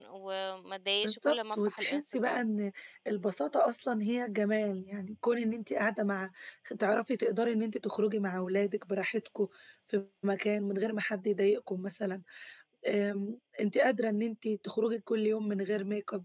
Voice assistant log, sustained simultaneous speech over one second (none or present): present